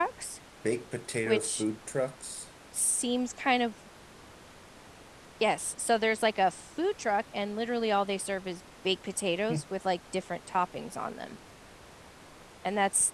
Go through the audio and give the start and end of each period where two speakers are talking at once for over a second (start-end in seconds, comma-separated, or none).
none